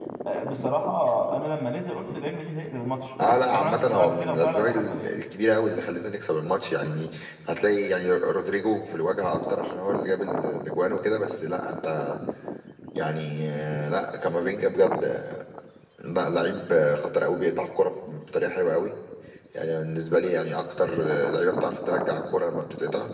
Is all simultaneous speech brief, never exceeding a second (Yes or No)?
No